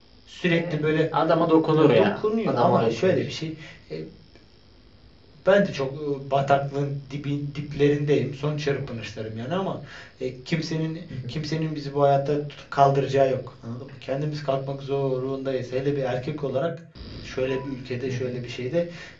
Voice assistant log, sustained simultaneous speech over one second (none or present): present